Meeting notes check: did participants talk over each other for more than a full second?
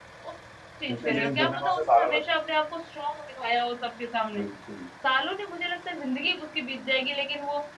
Yes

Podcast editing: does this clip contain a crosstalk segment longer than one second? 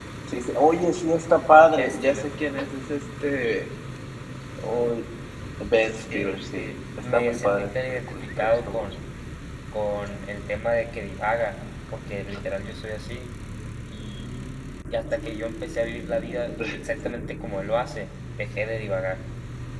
Yes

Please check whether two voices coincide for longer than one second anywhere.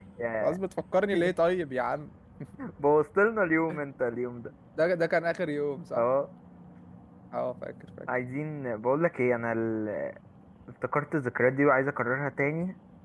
No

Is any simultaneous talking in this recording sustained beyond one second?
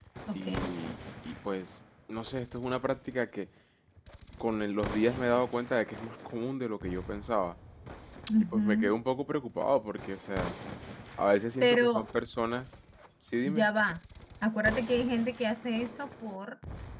No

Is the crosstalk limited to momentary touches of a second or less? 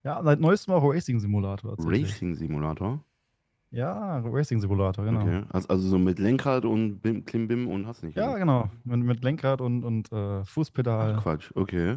Yes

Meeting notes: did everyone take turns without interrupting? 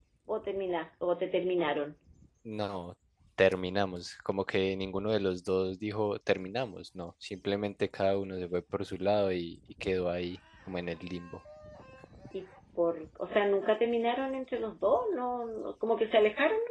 Yes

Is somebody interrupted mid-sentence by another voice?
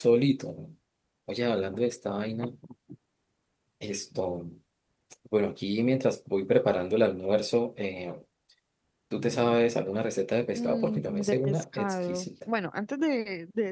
Yes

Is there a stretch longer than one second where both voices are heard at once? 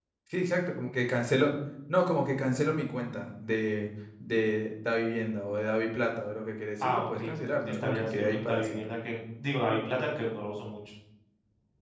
Yes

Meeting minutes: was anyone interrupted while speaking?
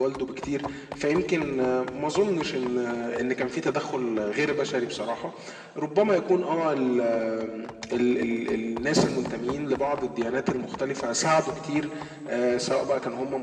No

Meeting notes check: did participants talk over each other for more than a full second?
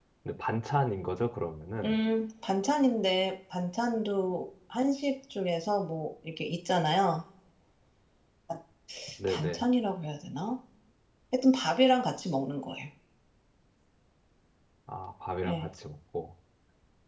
No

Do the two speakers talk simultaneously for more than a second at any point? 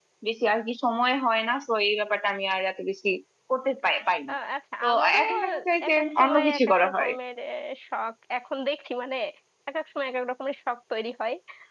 Yes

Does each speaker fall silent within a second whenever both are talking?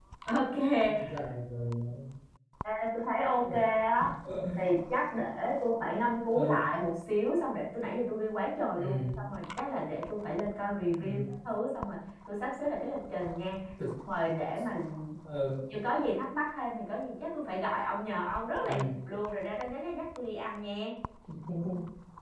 Yes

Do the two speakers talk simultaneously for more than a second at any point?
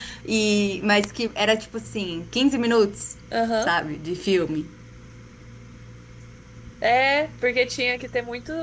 No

